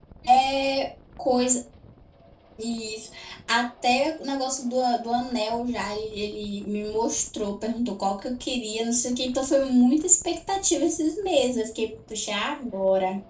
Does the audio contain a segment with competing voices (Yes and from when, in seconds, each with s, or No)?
No